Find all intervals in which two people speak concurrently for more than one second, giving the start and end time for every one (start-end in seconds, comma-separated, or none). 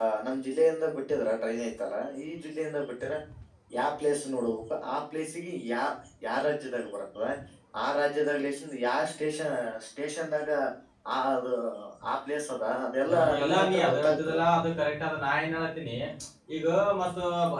13.1-14.4